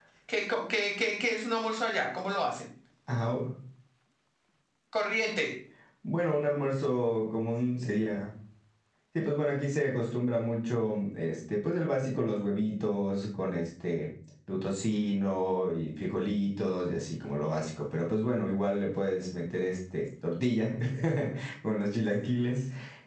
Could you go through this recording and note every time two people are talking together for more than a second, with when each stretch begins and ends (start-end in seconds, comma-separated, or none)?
none